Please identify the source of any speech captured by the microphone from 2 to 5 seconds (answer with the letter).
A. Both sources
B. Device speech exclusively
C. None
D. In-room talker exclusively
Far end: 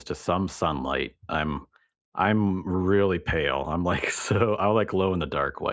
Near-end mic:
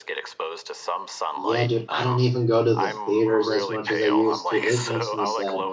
A